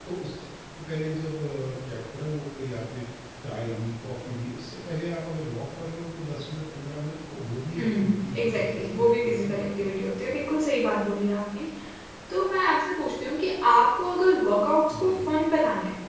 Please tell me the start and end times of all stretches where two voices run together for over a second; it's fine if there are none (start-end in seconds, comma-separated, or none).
7.8-10.3